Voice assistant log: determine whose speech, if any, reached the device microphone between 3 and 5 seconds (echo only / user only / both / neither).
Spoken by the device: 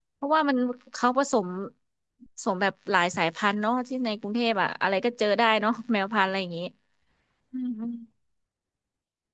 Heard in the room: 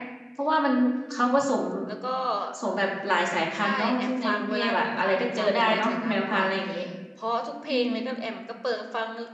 both